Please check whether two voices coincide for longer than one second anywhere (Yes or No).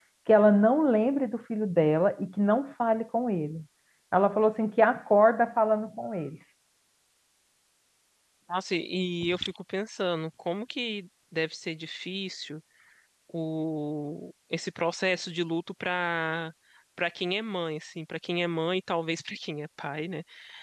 No